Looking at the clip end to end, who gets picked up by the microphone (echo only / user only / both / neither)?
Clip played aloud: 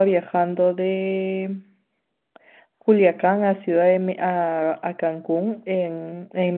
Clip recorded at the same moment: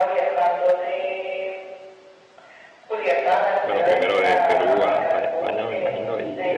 both